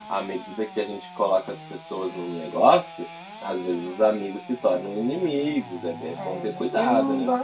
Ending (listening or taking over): taking over